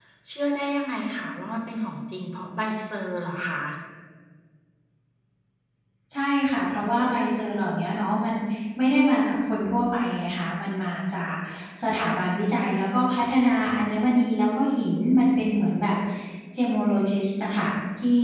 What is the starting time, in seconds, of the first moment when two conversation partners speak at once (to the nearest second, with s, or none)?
none